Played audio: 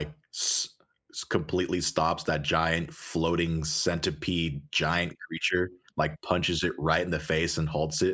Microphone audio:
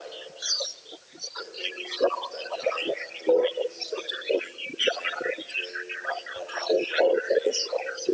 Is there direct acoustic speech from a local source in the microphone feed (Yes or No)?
No